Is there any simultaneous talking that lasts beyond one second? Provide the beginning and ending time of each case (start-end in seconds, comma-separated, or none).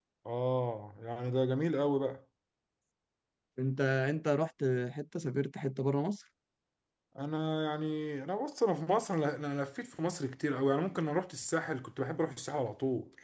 none